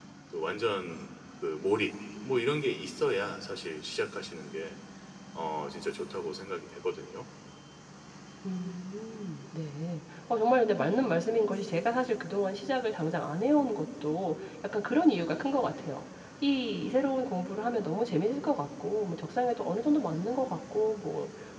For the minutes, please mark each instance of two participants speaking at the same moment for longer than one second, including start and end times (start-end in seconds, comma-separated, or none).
none